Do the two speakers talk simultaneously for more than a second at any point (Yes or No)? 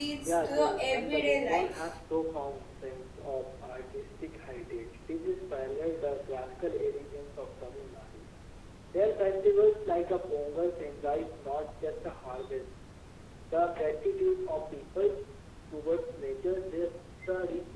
Yes